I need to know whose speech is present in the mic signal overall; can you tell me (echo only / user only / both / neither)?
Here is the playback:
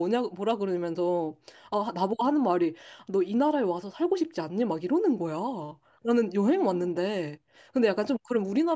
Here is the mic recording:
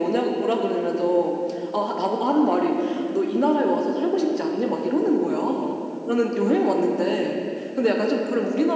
echo only